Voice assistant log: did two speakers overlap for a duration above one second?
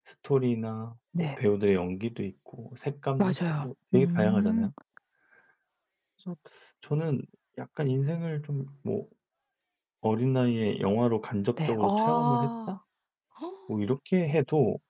Yes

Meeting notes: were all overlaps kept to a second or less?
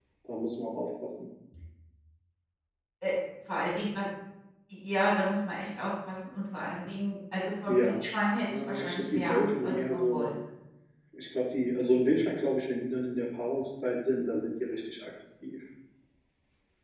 No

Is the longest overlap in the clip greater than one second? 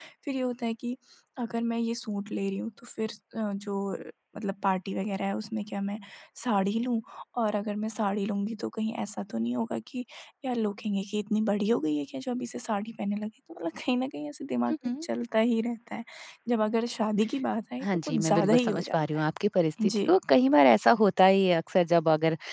Yes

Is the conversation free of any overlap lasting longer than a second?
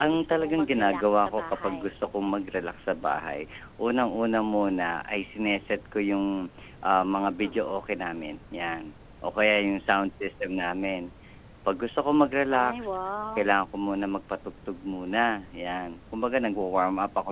No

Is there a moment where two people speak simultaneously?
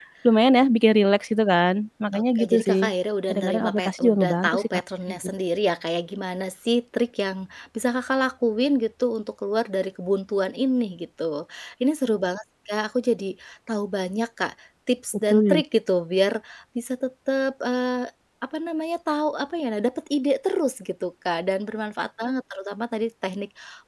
Yes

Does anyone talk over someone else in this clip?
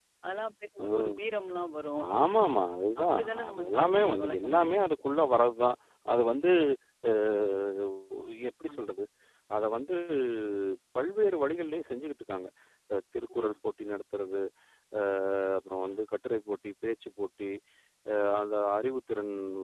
Yes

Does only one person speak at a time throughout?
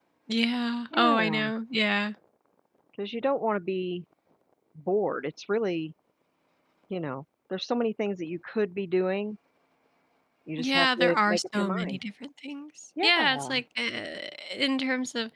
No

